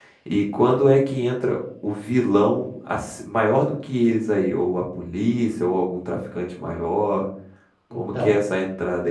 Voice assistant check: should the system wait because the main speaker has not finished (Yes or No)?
Yes